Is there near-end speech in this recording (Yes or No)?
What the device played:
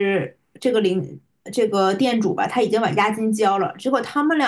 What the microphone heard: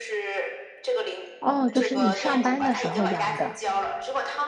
Yes